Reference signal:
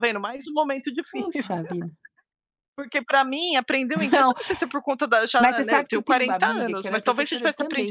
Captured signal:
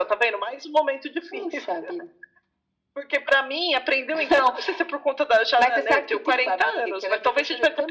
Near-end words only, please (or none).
none